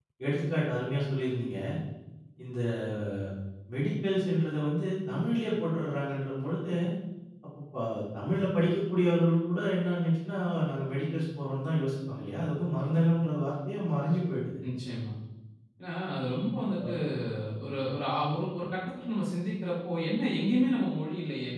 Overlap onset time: none

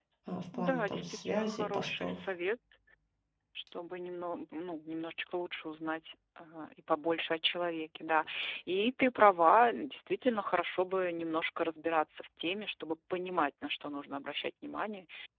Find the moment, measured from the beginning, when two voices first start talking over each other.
1 s

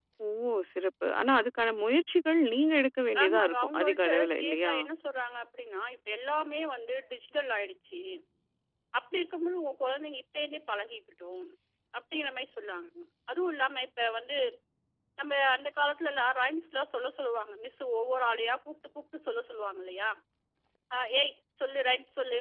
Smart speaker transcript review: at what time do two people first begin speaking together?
3 s

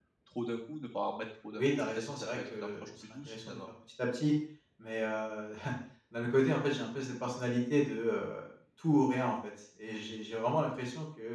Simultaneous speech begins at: 2 s

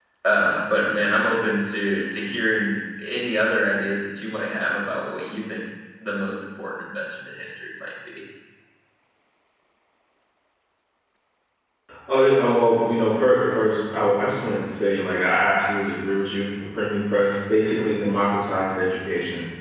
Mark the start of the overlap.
none

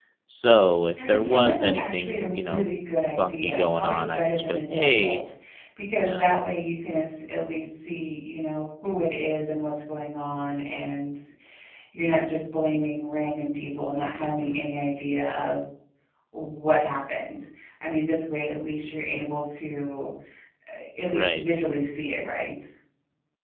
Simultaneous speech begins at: 1 s

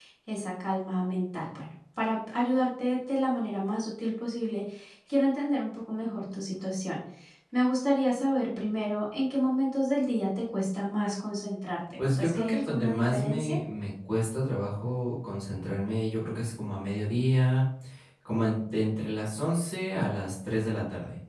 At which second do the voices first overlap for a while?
12 s

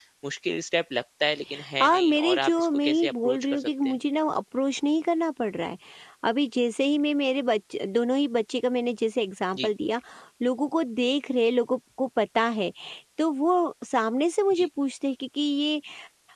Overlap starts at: 2 s

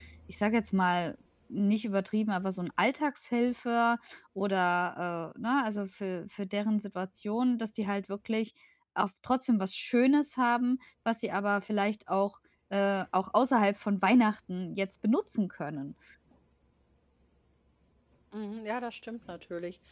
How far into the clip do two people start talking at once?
none

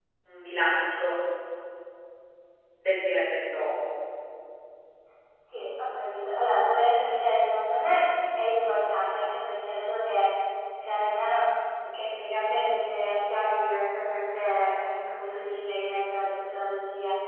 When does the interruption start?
none

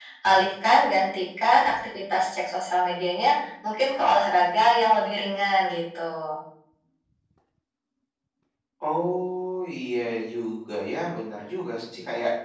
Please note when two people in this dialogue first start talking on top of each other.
none

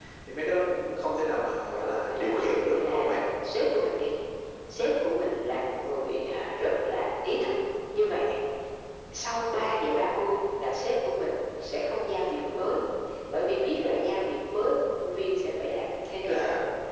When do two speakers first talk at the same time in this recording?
2 s

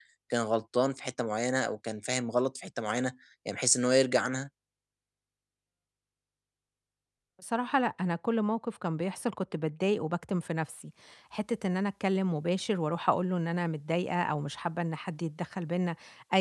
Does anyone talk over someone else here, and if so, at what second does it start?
none

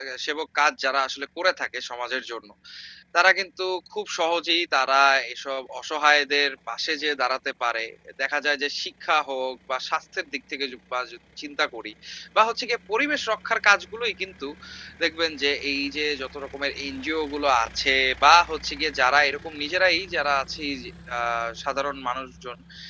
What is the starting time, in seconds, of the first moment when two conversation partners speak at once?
none

